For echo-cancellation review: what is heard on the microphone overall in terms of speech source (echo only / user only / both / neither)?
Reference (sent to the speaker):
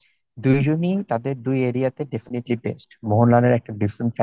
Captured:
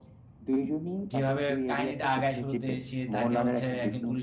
both